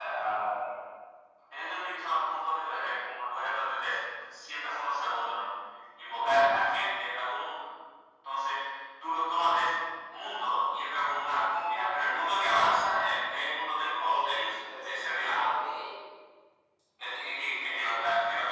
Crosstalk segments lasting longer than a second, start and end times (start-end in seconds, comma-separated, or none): 14.0-15.4